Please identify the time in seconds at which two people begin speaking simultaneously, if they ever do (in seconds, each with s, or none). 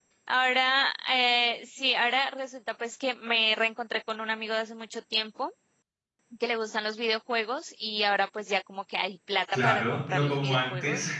9.5 s